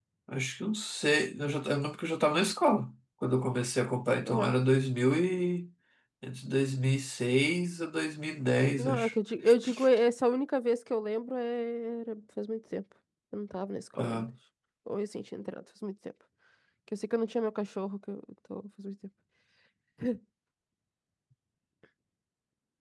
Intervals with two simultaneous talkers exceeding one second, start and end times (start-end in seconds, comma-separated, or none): none